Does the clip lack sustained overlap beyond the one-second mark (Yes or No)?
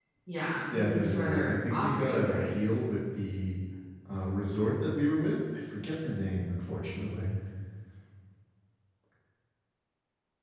No